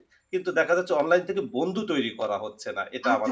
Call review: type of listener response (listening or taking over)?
taking over